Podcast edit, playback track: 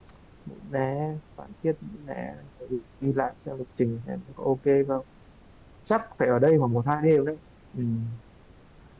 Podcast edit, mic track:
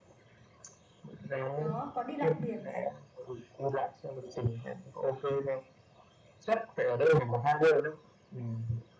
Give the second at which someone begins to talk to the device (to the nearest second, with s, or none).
2 s